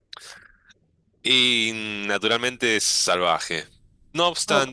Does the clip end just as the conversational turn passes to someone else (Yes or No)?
No